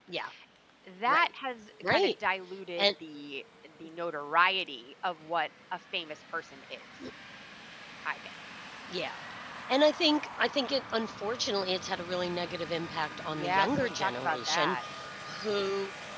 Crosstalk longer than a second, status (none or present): present